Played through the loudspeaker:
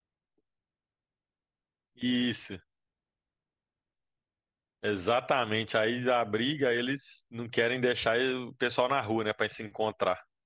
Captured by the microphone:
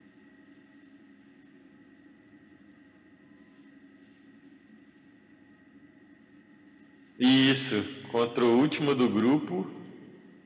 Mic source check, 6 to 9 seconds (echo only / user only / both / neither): user only